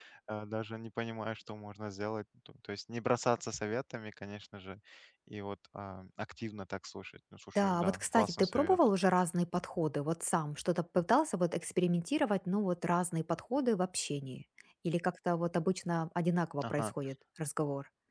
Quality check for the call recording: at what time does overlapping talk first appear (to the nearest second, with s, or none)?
8 s